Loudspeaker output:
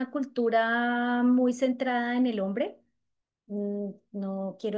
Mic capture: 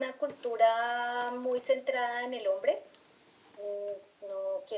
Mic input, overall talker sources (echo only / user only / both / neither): echo only